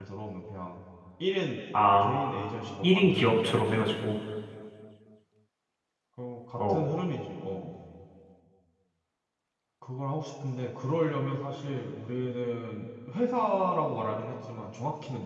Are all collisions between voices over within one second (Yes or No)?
No